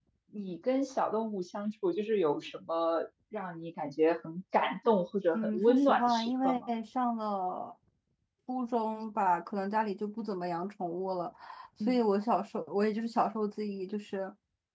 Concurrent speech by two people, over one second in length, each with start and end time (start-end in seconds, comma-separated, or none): 5.3-6.7